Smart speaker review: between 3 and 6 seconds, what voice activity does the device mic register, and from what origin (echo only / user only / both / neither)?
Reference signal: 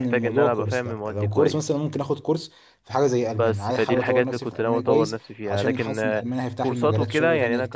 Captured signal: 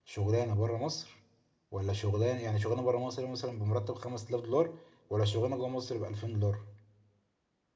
user only